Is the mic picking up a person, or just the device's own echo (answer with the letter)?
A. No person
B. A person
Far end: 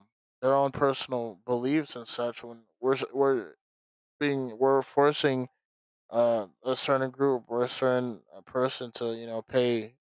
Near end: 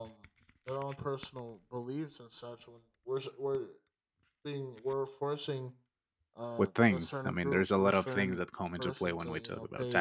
B